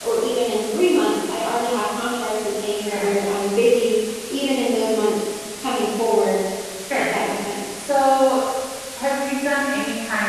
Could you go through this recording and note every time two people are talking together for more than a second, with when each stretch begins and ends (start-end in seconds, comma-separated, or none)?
none